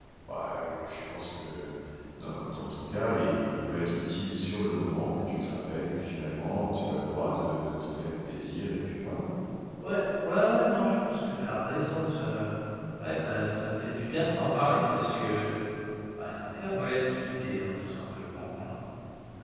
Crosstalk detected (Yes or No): No